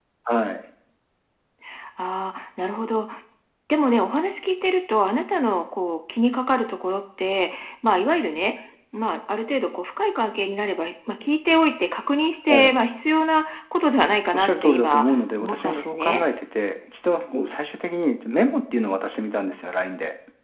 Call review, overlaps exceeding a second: present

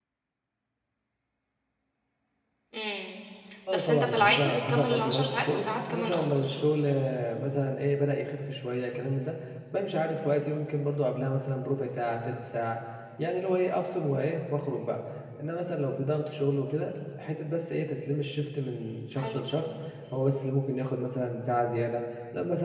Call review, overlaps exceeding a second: present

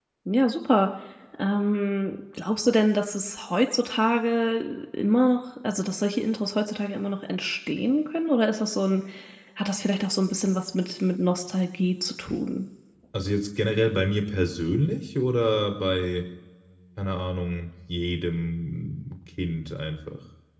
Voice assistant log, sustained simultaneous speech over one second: none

